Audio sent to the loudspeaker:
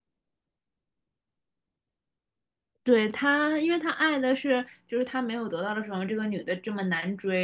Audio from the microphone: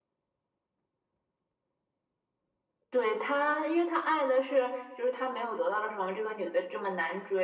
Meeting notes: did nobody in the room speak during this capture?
Yes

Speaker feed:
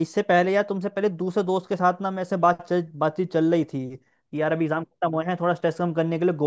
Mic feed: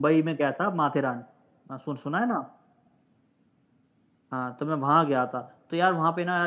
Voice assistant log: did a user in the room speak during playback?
Yes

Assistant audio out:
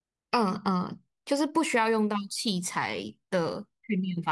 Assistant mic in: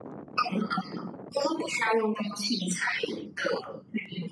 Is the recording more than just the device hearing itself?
No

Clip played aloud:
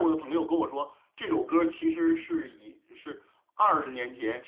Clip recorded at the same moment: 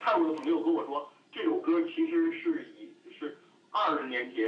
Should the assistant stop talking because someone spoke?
No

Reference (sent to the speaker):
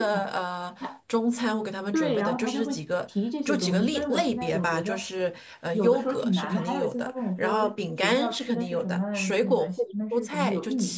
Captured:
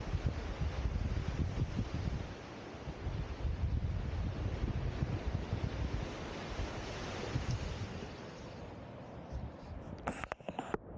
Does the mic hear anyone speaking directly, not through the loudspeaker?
No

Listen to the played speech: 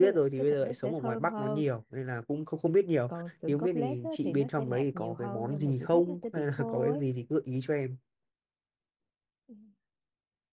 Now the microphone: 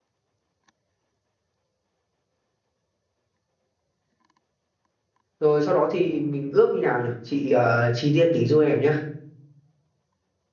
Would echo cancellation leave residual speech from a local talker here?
Yes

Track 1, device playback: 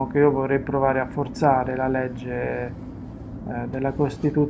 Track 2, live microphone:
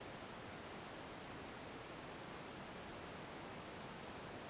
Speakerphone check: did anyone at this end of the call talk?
No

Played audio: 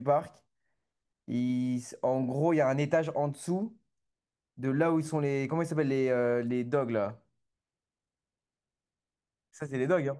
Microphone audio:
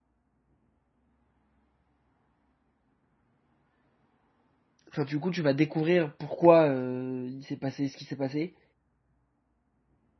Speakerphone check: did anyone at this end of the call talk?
Yes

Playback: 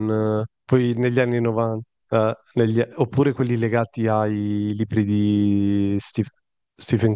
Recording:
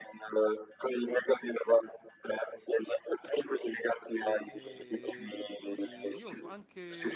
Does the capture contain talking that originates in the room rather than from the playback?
Yes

